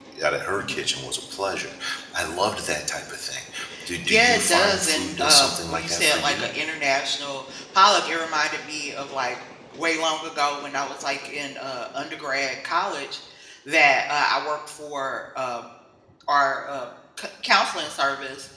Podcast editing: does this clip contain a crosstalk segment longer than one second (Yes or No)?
Yes